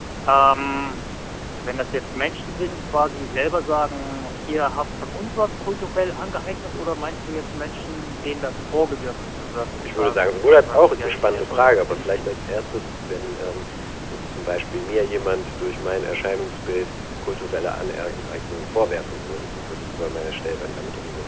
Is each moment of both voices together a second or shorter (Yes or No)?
No